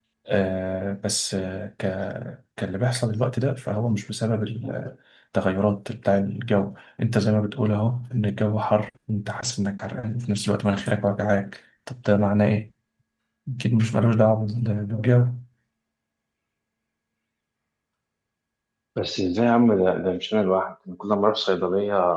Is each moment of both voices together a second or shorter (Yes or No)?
Yes